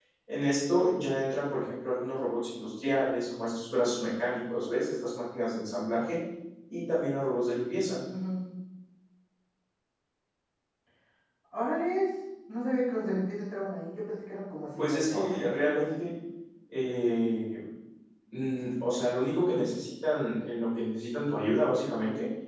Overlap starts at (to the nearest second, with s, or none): 15 s